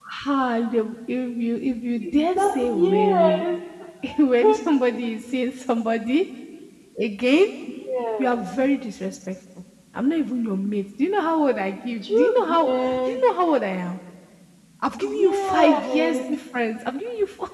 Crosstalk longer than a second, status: present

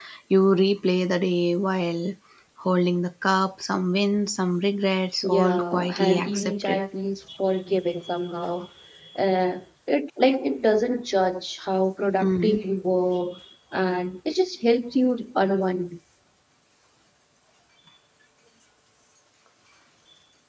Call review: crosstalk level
present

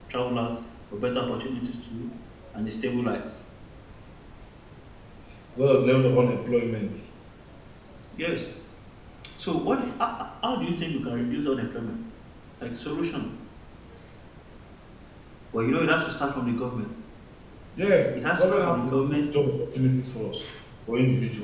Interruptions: present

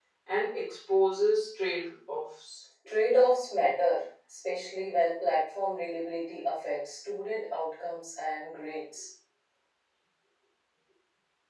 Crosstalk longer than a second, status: none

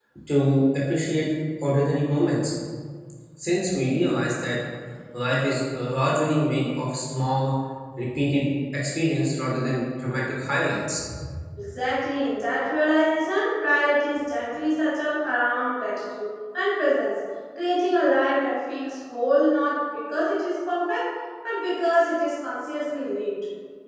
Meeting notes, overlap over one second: none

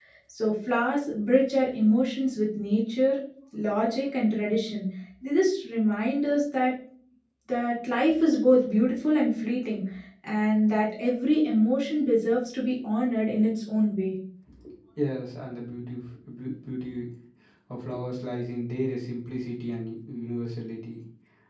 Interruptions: none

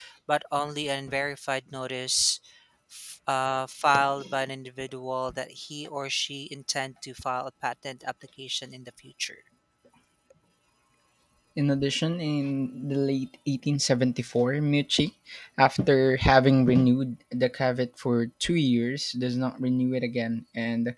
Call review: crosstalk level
none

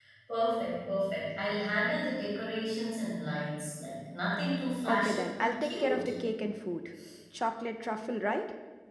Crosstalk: present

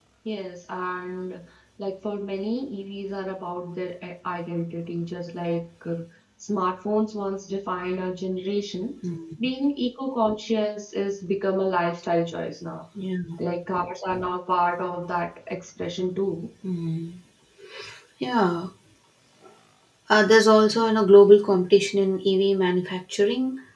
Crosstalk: none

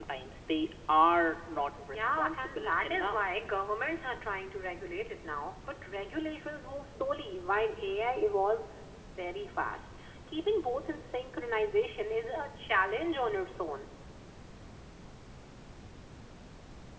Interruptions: present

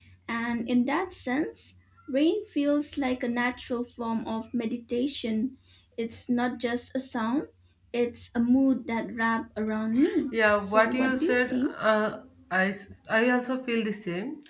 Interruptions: present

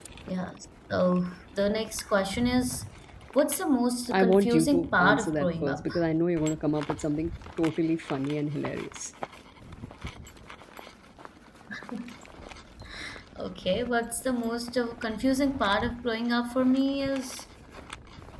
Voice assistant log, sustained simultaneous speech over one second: present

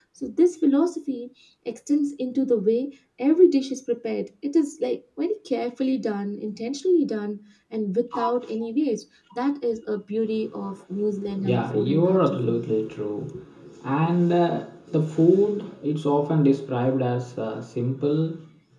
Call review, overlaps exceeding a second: present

